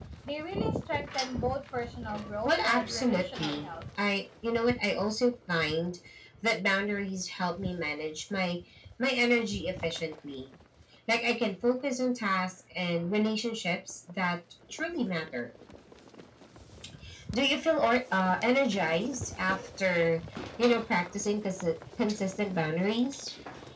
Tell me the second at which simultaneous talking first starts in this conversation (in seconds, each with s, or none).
2.5 s